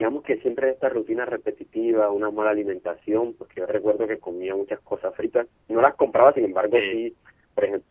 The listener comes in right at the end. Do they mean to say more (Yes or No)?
No